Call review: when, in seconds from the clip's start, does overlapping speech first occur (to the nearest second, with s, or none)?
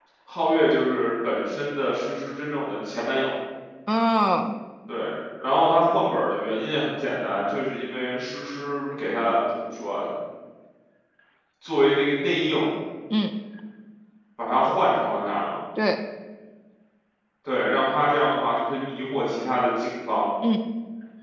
none